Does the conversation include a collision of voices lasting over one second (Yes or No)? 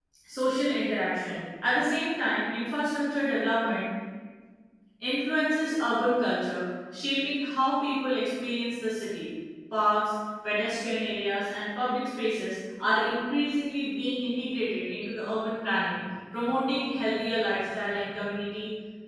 No